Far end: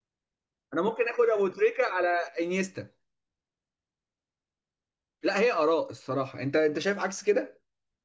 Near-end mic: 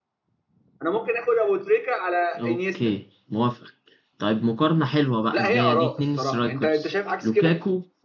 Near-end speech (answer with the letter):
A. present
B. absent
A